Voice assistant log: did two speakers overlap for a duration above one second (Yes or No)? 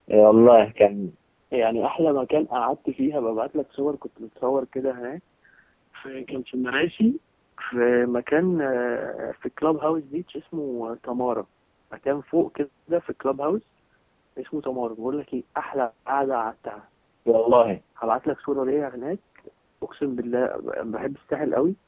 No